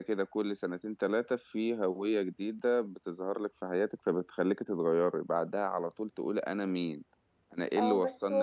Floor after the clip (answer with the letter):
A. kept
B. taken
B